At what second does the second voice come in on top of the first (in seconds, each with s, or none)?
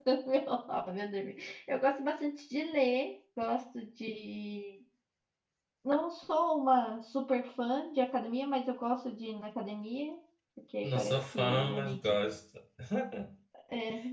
10.8 s